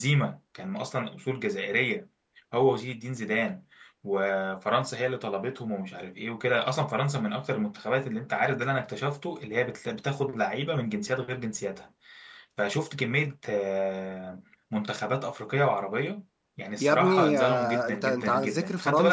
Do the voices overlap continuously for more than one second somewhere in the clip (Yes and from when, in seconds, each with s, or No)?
Yes, from 16.8 s